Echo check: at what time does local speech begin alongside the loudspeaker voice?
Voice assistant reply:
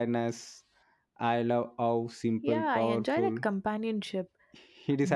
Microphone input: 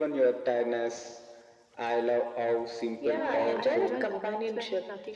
3.1 s

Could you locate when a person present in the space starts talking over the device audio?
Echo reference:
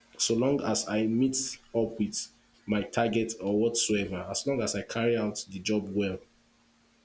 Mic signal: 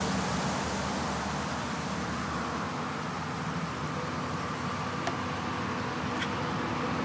none

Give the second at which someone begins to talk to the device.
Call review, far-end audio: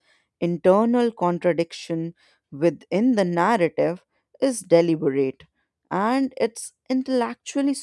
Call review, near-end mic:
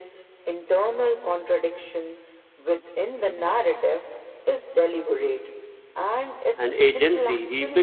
6.6 s

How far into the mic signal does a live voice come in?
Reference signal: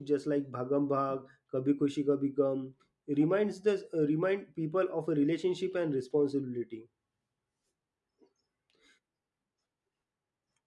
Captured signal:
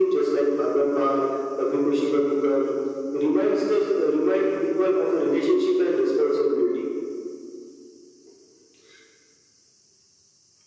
none

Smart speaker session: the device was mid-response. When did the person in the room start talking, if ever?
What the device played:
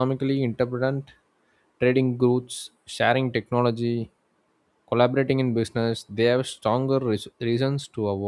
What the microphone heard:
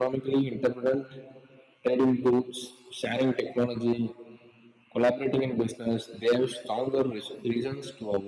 none

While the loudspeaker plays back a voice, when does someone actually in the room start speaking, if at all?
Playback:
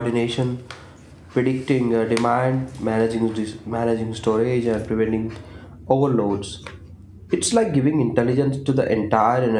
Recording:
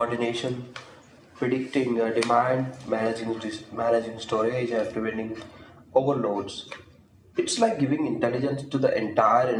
none

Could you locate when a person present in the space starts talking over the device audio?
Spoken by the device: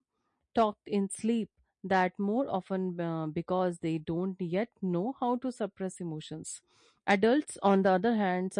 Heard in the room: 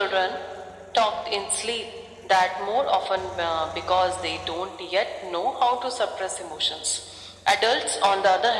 none

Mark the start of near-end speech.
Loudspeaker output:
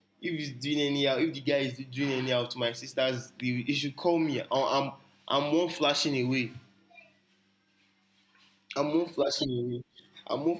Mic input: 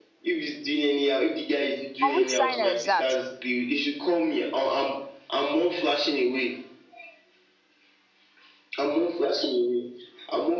2.1 s

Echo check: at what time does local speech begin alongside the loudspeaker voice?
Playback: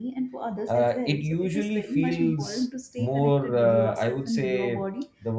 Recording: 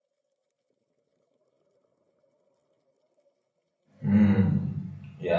4.0 s

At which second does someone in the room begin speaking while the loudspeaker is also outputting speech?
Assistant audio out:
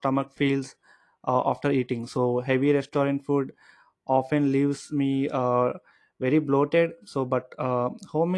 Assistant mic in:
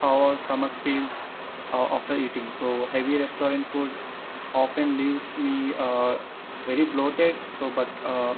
none

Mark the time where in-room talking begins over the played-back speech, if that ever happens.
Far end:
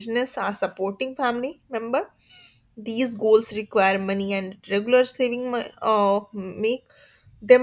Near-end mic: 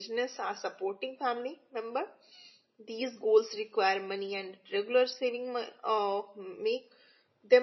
none

